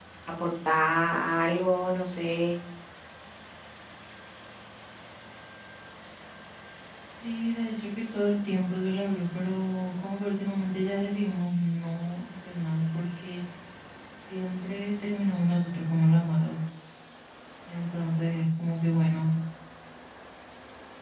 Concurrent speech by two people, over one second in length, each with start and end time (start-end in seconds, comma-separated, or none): none